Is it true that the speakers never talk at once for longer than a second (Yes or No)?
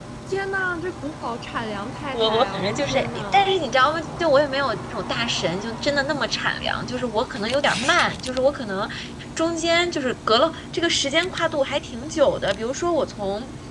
No